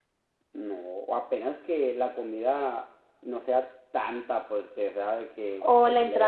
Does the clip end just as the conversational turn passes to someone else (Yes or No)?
Yes